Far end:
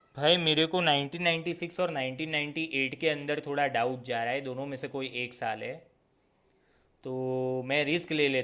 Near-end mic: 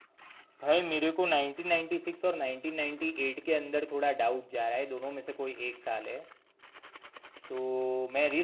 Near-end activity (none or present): none